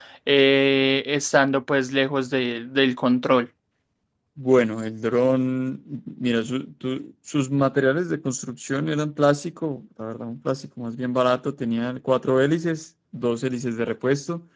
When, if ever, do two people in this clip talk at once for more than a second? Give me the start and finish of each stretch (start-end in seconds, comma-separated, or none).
none